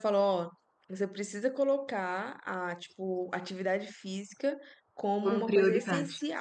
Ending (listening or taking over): listening